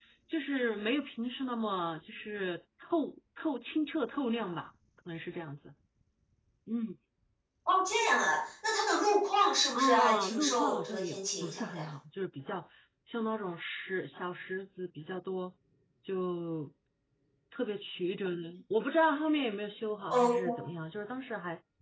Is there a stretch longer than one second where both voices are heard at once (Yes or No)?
Yes